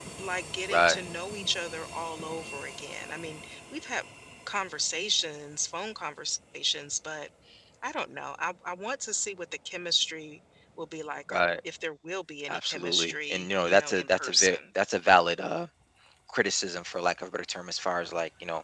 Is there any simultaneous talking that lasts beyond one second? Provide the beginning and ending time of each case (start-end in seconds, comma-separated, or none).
12.5-14.6